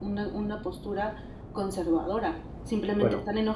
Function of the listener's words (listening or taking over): listening